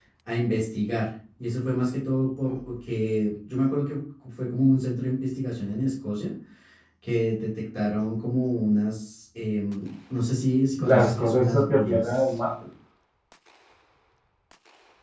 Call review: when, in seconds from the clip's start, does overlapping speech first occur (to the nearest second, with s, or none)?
11 s